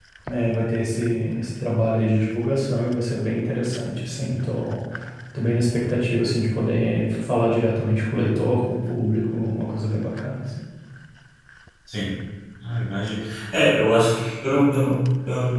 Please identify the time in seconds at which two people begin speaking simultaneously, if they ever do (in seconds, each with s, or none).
none